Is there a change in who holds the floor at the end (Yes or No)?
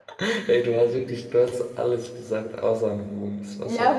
Yes